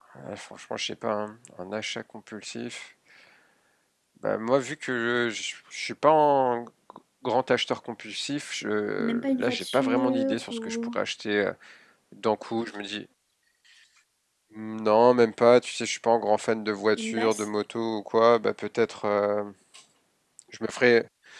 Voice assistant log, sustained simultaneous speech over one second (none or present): present